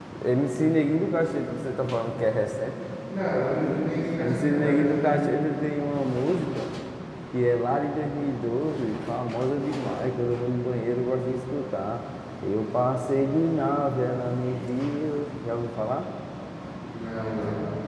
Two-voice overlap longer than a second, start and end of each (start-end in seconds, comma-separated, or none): 4.2-5.4